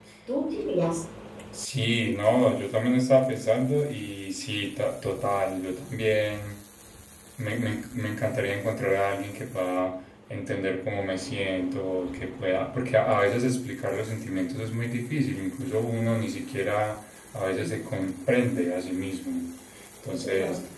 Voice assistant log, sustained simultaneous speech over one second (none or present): none